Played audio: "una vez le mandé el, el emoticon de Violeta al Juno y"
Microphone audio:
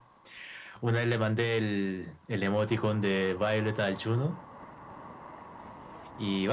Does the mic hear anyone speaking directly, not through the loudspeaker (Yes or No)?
No